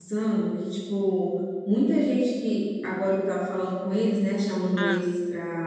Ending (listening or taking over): listening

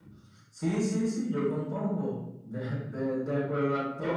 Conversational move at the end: listening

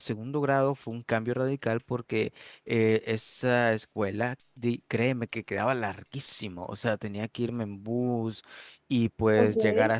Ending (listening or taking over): listening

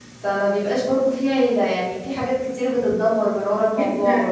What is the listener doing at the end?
taking over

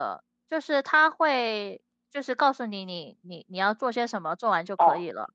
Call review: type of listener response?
taking over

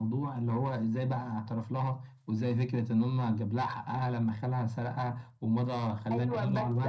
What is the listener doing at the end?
taking over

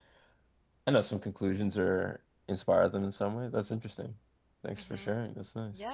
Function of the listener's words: taking over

